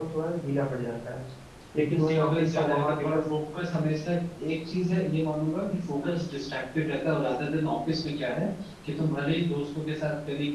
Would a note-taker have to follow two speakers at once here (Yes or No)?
Yes